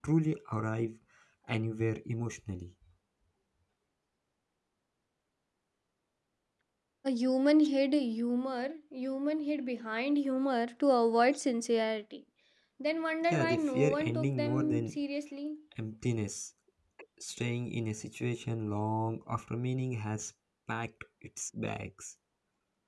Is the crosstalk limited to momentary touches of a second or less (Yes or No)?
No